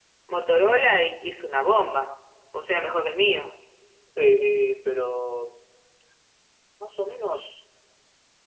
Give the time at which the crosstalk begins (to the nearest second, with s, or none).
none